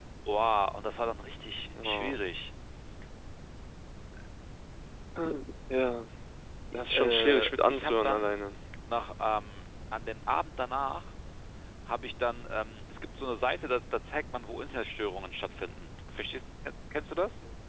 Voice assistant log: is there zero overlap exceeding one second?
No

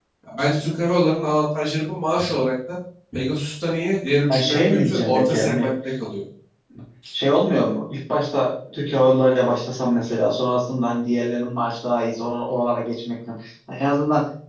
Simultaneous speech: Yes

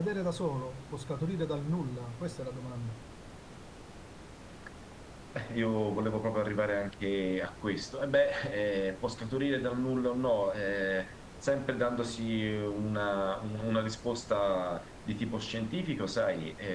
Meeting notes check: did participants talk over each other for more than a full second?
No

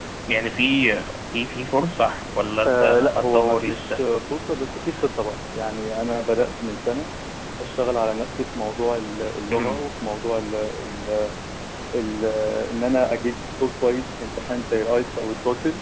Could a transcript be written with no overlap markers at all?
No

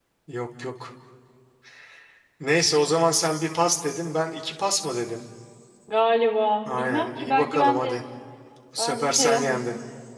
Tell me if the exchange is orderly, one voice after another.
No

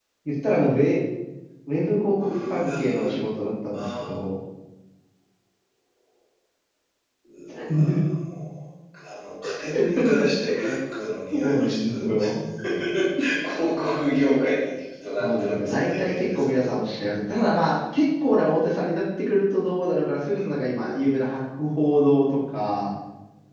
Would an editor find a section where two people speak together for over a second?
Yes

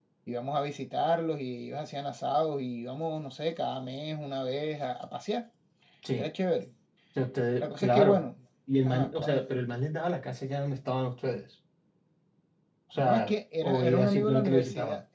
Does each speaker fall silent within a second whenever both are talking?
No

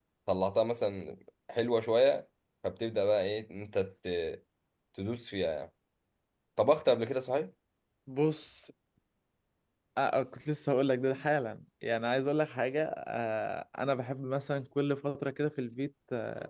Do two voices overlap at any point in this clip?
No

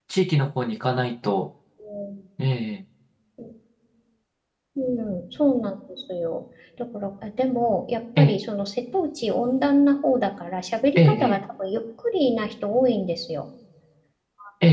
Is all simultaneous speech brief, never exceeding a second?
Yes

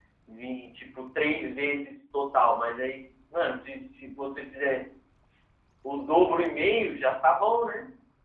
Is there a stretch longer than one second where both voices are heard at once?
No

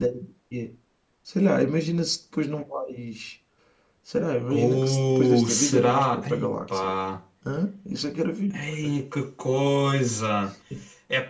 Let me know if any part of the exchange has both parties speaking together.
Yes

